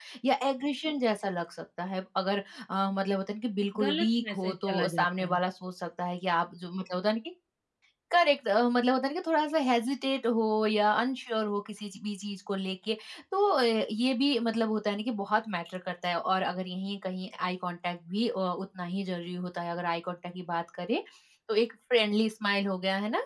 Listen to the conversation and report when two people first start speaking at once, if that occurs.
3.7 s

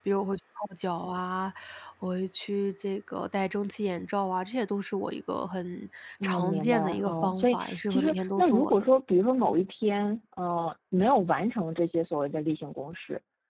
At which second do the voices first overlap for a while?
6.2 s

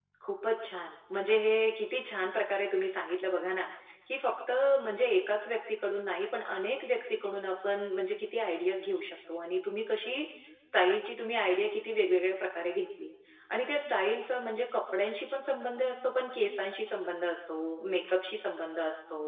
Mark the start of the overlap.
none

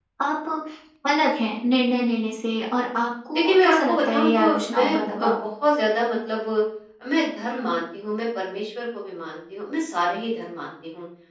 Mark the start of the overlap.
3.3 s

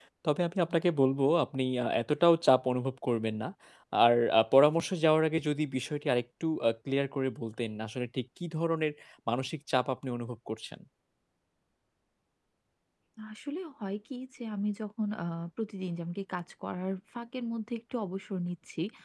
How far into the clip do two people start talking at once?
none

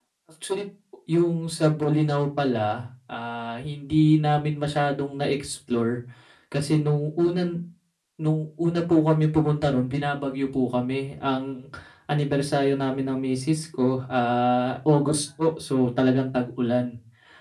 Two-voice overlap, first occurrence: none

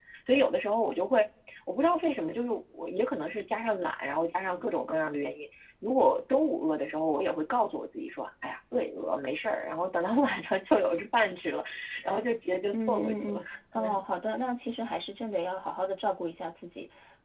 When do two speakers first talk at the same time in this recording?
12.7 s

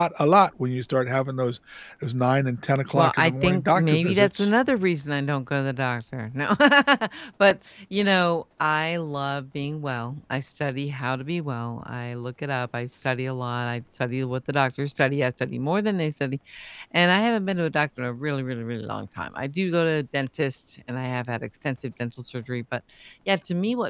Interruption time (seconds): 2.9 s

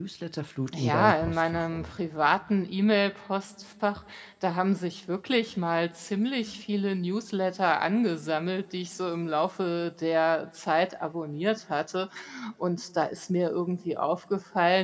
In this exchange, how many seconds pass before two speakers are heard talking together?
0.7 s

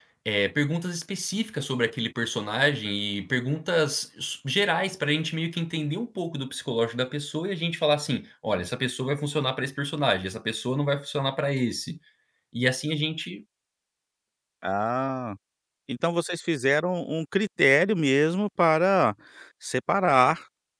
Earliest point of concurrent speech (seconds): none

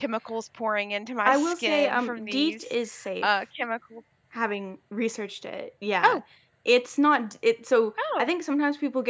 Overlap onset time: 1.2 s

